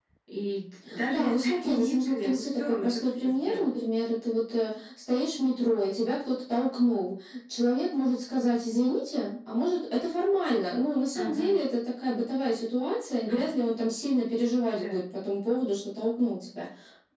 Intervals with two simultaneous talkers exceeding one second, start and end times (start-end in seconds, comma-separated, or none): 1.1-3.7